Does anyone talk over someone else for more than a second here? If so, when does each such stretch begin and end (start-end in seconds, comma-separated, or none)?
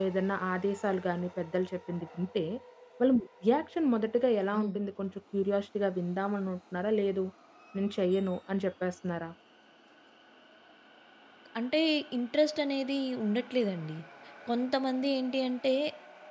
none